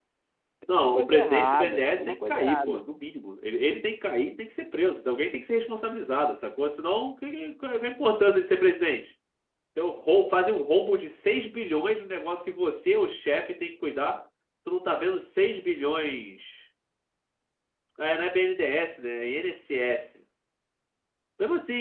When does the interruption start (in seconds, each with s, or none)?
0.7 s